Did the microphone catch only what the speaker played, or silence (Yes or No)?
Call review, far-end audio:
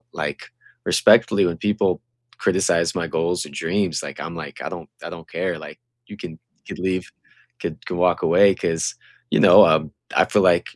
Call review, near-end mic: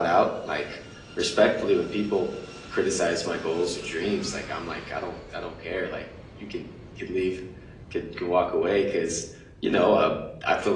Yes